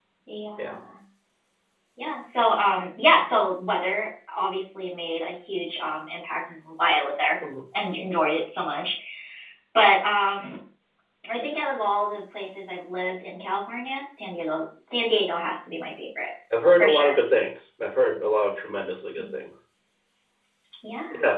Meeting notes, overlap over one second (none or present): none